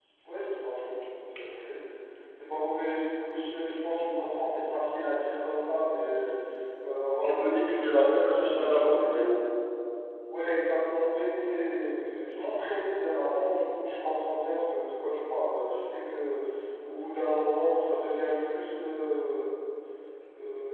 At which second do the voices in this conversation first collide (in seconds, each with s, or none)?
7.2 s